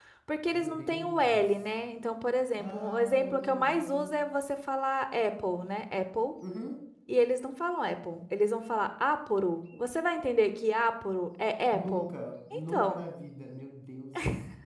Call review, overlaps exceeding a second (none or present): present